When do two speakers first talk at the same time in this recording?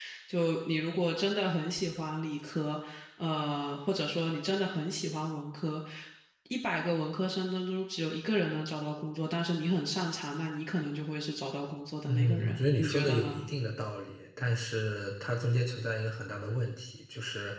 12.1 s

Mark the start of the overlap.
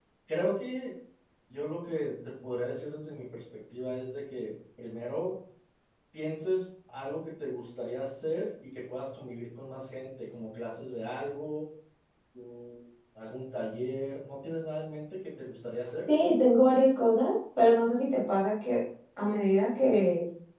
none

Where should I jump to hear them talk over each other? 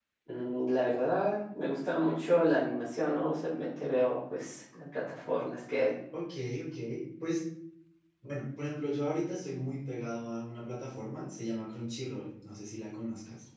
none

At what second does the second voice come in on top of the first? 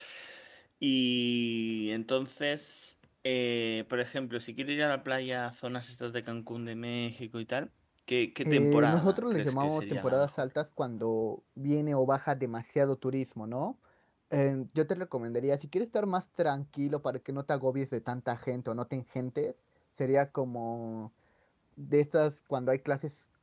8.4 s

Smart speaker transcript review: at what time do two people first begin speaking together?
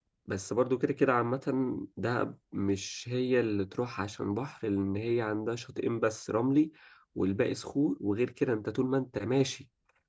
none

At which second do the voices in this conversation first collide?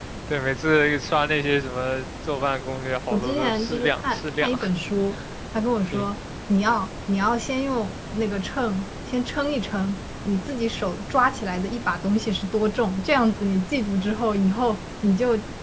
3.1 s

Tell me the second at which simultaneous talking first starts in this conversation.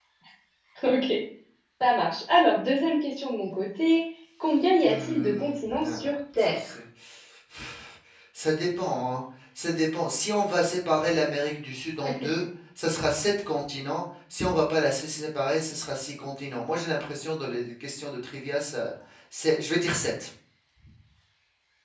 4.8 s

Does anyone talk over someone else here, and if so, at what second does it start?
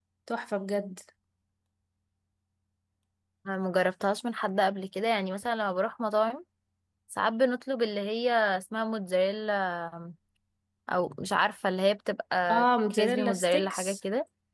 12.5 s

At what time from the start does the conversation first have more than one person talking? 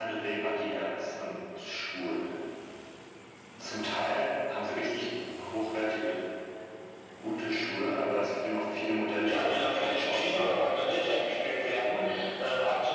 9.2 s

